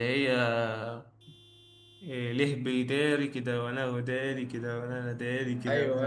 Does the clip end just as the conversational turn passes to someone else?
Yes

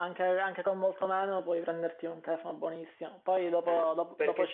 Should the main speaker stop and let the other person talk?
No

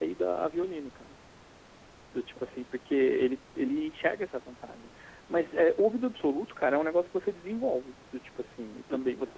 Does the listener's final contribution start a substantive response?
No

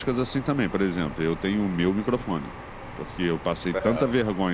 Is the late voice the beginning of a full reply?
No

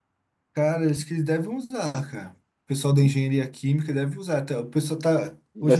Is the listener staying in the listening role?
No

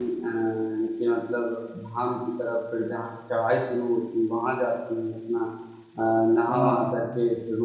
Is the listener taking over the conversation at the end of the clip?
No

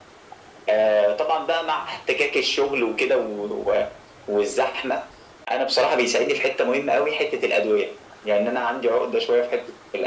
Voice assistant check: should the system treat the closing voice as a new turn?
No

